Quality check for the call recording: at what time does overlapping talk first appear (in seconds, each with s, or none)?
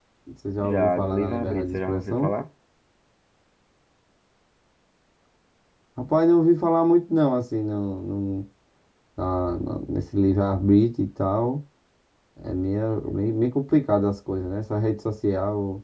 0.6 s